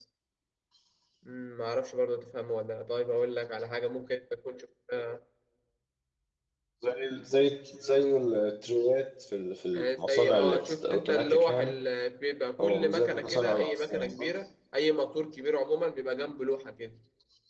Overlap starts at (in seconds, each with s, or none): 9.7 s